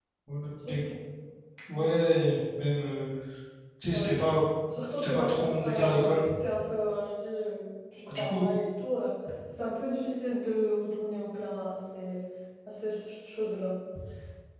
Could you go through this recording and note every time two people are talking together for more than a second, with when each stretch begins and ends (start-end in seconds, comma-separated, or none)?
5.0-6.2